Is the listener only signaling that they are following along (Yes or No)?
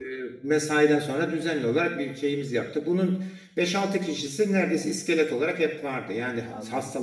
Yes